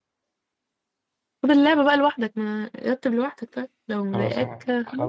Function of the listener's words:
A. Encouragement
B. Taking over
B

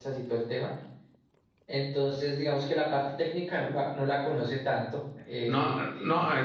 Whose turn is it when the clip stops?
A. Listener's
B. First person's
A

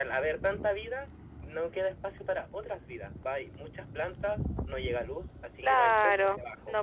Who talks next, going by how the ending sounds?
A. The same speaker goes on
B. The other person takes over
B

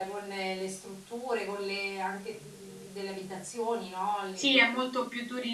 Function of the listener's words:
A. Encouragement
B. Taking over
B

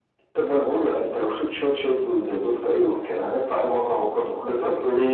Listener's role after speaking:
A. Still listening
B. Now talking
B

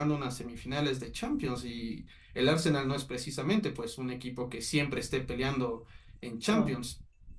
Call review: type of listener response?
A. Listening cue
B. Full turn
A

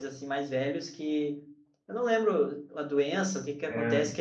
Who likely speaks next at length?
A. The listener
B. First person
B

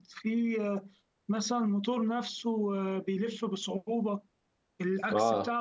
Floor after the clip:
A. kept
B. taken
B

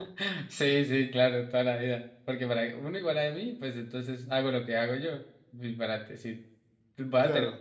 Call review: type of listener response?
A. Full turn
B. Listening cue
B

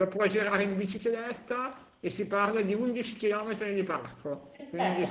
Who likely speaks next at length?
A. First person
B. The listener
B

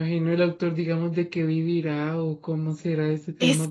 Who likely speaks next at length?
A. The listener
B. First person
A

